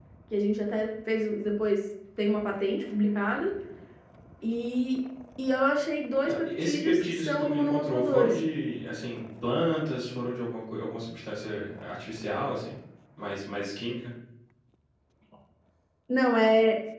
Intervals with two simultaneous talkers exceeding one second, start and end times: 6.3-8.4

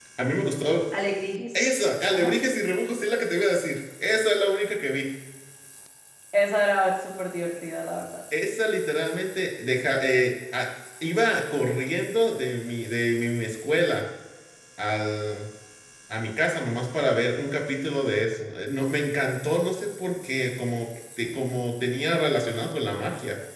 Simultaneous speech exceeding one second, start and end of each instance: none

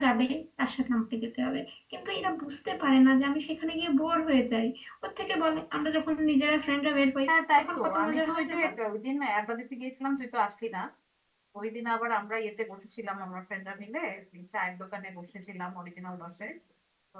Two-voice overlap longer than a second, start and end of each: 7.3-8.7

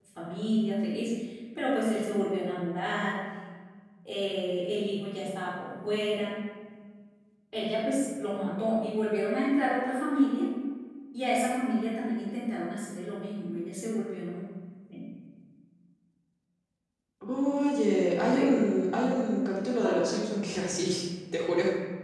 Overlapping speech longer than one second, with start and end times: none

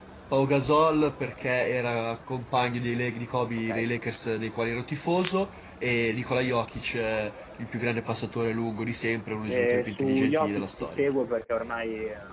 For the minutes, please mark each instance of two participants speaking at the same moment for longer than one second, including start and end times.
9.5-11.1

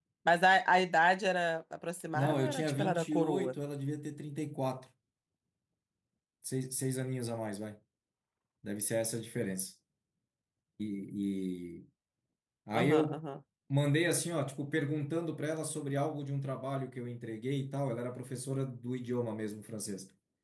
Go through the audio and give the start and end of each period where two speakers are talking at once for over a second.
2.1-3.5

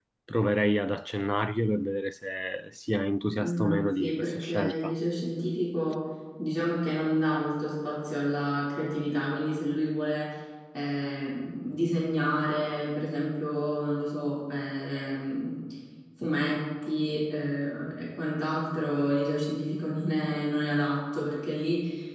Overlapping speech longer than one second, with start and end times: 3.4-4.9

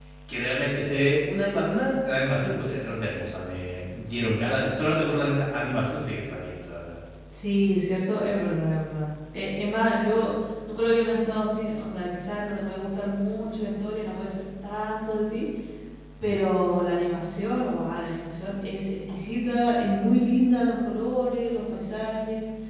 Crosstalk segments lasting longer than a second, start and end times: none

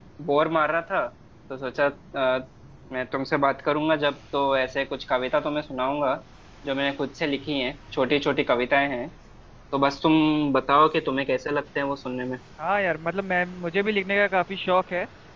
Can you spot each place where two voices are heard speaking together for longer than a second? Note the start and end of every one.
none

